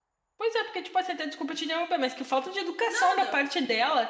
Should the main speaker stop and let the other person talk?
No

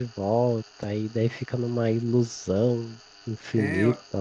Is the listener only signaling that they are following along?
No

